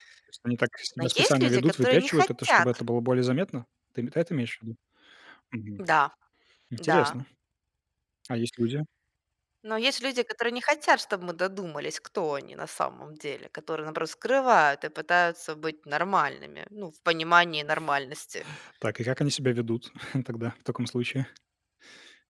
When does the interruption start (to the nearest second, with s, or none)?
1 s